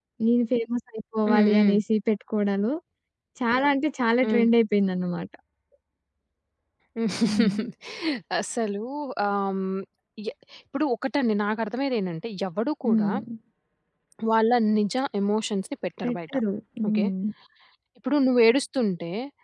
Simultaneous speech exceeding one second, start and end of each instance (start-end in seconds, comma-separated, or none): none